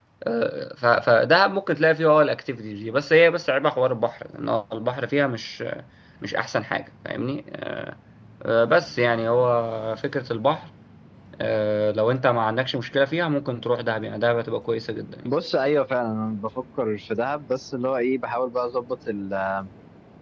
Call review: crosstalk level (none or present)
none